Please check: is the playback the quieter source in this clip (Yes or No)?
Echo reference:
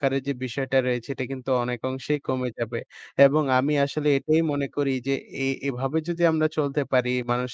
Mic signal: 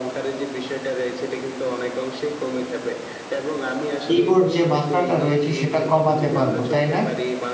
Yes